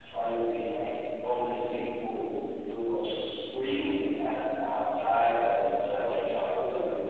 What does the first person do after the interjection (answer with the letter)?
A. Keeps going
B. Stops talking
A